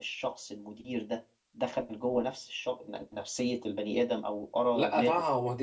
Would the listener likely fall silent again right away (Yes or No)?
No